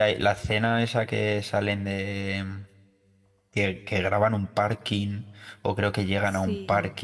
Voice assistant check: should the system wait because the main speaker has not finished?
Yes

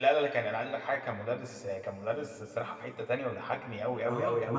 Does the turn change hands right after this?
Yes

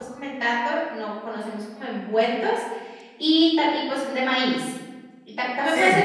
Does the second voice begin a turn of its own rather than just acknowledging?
No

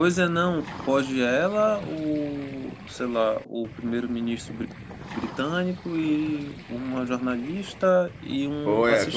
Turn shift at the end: Yes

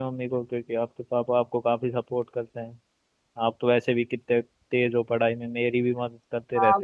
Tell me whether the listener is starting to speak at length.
Yes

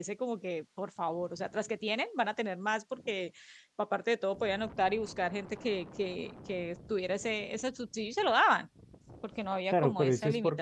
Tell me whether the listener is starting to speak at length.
Yes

